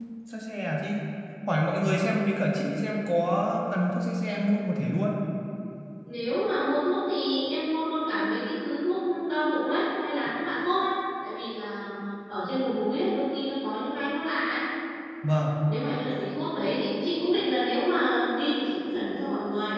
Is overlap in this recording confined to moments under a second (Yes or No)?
Yes